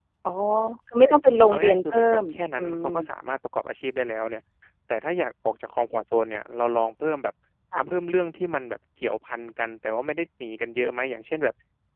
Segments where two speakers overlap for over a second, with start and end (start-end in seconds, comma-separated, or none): 1.5-2.9